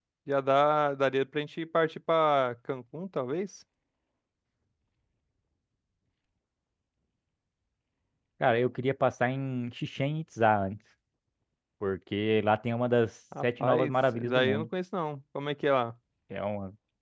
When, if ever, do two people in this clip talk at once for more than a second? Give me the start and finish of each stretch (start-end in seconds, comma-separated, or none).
13.4-14.7